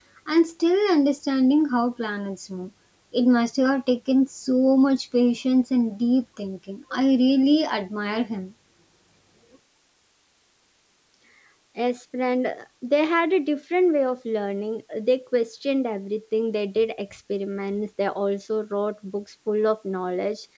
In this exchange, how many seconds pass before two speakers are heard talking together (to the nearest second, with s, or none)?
none